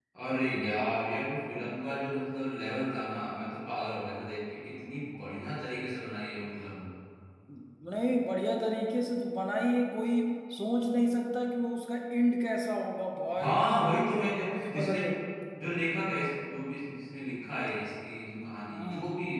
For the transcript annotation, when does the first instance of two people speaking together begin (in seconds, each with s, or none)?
13.3 s